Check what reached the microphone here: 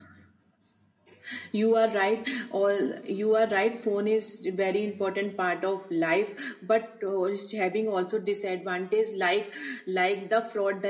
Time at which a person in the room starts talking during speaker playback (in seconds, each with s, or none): none